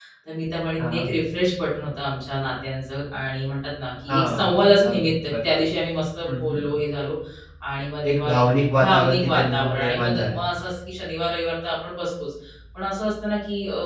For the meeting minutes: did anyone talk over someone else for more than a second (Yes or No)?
Yes